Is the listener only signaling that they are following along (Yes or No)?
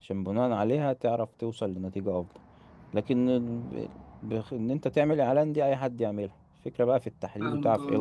Yes